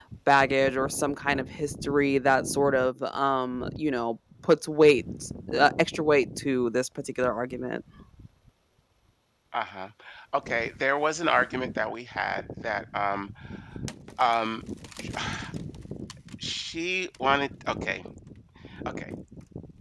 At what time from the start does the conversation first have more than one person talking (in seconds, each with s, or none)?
none